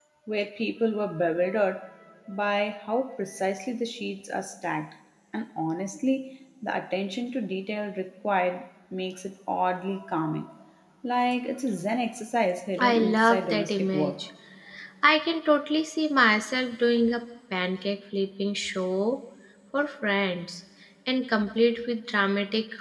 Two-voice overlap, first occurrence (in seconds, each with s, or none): 12.8 s